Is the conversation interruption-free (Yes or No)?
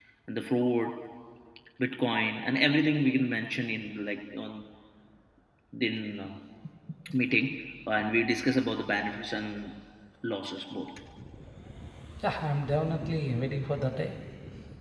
Yes